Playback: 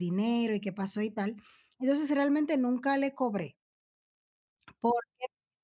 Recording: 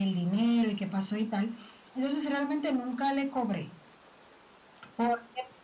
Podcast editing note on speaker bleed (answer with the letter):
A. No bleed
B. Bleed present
B